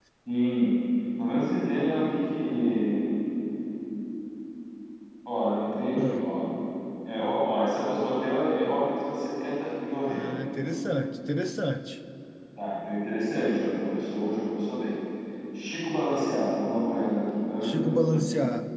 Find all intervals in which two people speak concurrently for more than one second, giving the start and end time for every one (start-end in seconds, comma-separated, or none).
none